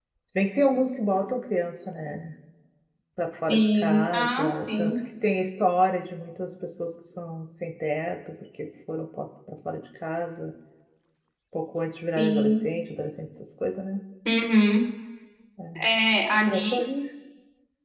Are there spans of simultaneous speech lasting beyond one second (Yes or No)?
Yes